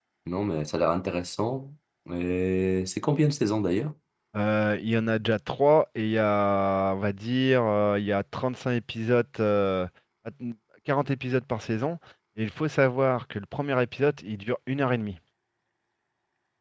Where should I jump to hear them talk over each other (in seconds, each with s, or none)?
none